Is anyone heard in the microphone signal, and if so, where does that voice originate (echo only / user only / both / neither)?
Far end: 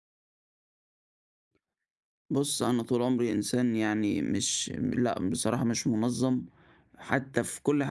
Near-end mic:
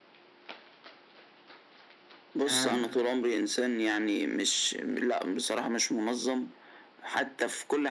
both